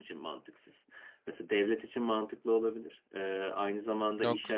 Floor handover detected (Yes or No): No